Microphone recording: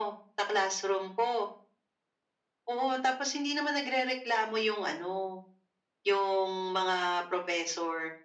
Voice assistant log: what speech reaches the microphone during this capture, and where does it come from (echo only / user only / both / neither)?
echo only